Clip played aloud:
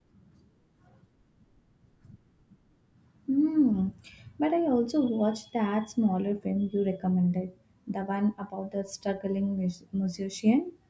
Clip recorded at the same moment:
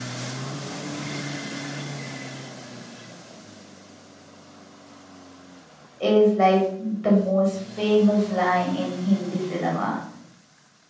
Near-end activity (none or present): present